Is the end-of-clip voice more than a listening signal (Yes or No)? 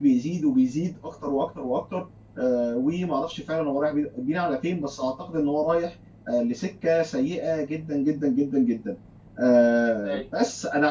No